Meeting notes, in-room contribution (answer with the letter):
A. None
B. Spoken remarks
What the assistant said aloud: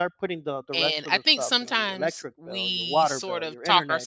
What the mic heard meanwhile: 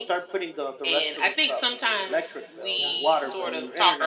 B